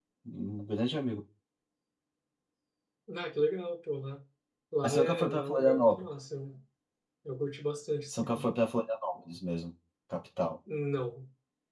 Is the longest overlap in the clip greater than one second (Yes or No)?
Yes